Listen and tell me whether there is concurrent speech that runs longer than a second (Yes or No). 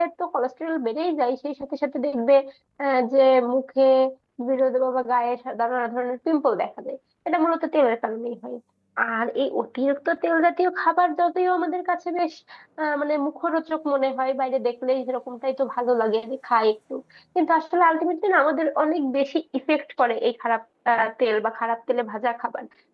No